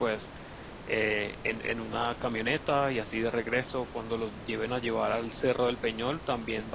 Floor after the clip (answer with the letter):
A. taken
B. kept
B